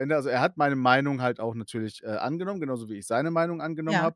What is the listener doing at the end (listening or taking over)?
listening